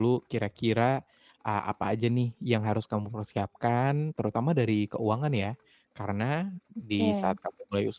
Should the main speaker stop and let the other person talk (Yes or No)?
No